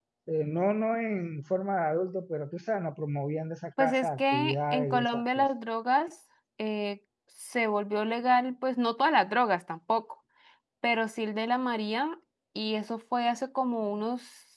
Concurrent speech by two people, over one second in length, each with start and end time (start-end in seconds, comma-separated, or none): 3.8-5.5